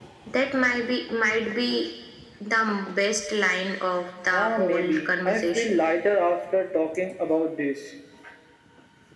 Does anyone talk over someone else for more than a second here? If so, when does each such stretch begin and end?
4.3-5.8

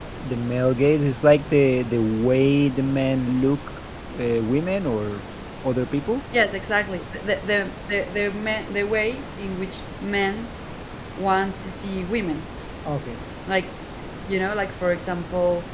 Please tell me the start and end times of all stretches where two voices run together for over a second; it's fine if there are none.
none

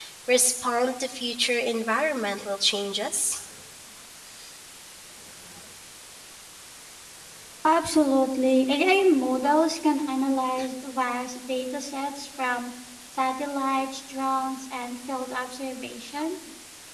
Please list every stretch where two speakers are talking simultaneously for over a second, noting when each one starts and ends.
none

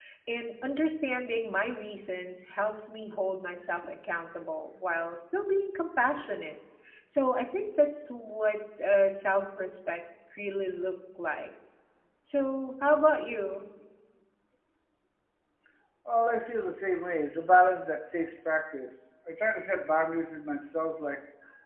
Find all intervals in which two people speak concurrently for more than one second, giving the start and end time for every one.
none

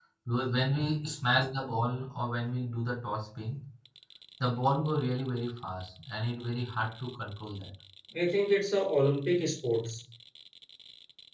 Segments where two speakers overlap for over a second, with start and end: none

